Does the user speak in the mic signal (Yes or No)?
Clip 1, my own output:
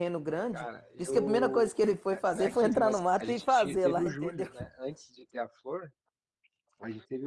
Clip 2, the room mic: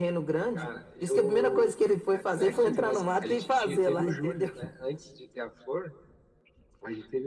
No